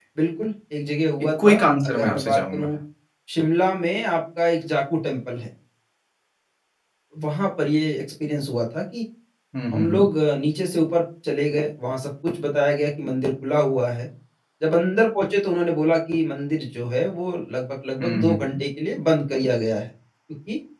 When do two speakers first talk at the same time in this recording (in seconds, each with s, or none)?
1.4 s